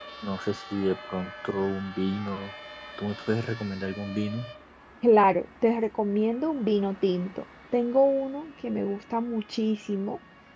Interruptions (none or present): none